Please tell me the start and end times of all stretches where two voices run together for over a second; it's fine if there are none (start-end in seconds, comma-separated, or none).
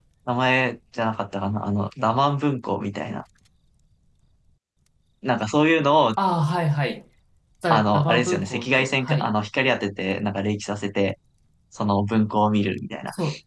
7.7-9.3